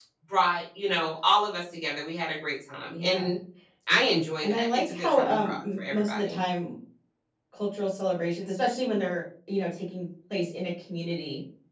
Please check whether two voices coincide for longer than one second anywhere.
Yes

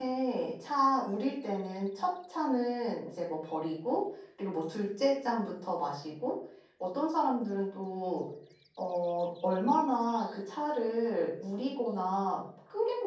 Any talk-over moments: No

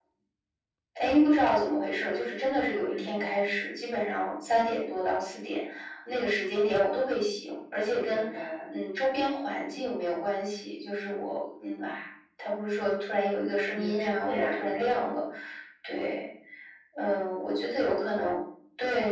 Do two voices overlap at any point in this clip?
Yes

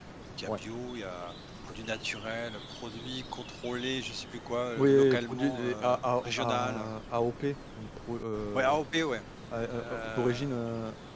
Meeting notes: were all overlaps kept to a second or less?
No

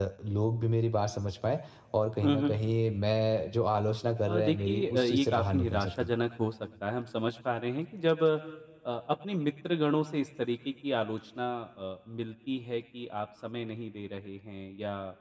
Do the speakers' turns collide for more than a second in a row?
Yes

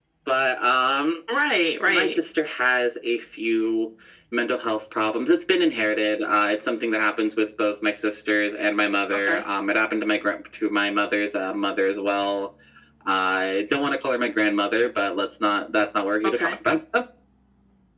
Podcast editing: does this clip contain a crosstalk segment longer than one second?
No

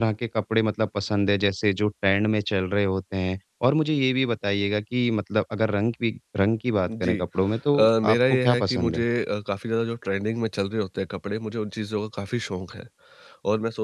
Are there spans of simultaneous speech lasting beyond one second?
Yes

